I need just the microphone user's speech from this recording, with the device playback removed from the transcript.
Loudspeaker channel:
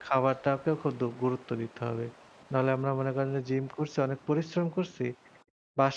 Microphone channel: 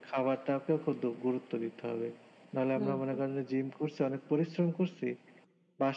হুম, হুম।

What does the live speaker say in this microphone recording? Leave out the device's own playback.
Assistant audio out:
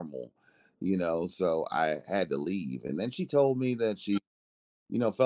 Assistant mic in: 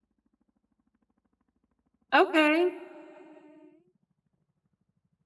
Okay.

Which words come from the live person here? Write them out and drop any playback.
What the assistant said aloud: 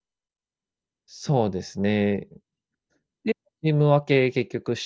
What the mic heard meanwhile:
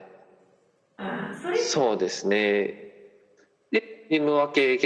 ああ、それ

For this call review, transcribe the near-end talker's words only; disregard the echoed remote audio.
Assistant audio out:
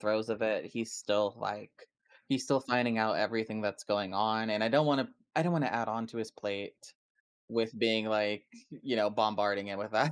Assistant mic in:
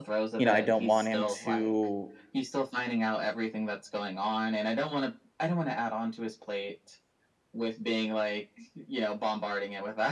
you know, I don't want him to,

